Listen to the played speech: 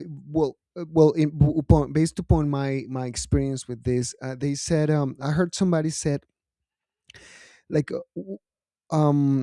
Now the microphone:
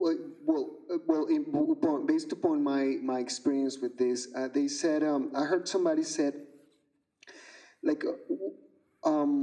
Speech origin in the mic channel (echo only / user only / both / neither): echo only